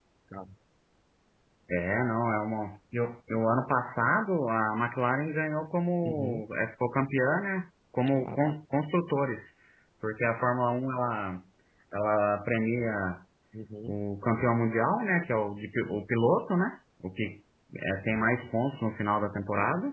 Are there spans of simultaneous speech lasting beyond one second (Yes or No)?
No